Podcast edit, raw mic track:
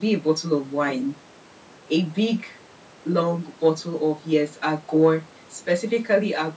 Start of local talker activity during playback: none

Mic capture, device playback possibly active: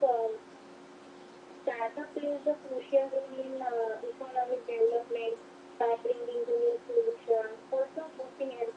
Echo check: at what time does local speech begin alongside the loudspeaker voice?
none

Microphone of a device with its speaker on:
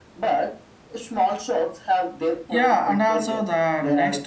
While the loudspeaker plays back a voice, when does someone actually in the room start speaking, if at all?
2.5 s

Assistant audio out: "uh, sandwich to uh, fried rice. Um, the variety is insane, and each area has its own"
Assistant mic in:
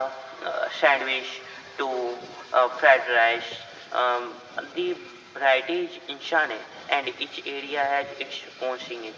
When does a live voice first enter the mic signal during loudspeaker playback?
none

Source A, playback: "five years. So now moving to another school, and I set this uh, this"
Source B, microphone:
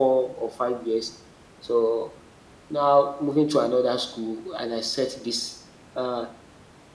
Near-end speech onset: none

